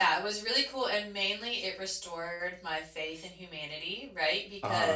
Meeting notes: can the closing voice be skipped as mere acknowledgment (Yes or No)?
Yes